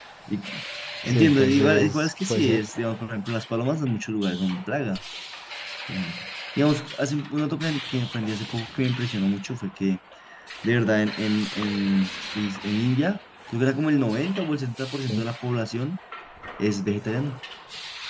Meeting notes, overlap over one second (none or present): present